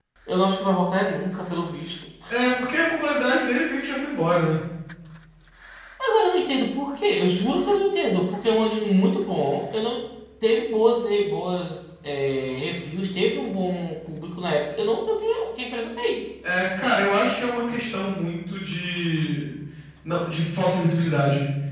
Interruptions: none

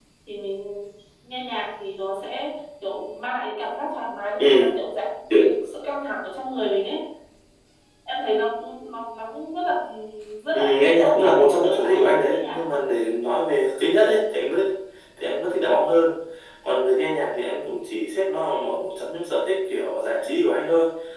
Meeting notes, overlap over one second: present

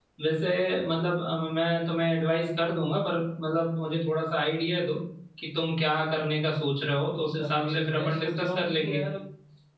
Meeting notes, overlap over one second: present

